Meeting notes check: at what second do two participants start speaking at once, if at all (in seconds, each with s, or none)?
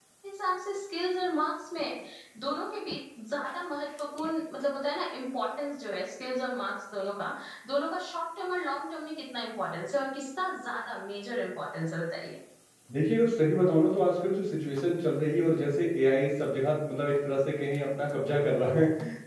none